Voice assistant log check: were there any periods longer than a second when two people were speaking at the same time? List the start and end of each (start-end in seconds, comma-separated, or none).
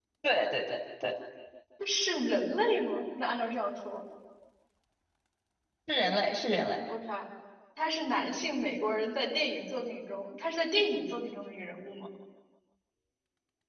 none